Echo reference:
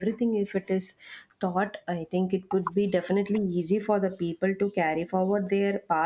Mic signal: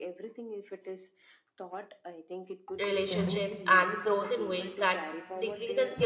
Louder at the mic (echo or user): user